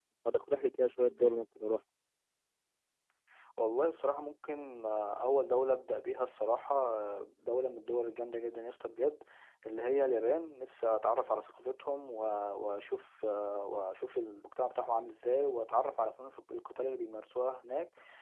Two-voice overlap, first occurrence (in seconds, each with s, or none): none